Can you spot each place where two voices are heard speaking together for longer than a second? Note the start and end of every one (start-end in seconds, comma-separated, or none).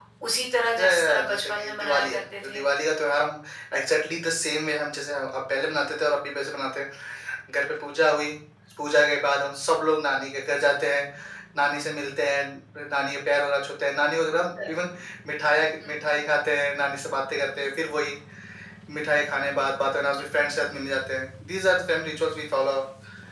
0.8-2.6